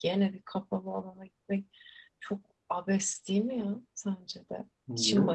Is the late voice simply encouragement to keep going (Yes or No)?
No